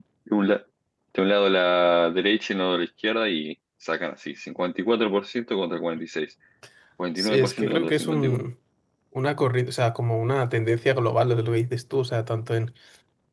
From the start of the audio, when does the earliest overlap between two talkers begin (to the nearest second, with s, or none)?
7 s